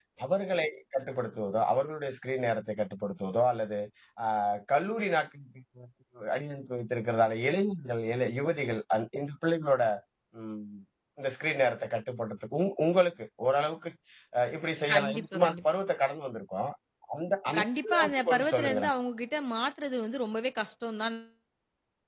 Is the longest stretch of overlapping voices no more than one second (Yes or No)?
No